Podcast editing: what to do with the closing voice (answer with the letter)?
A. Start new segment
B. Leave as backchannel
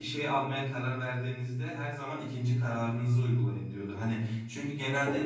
B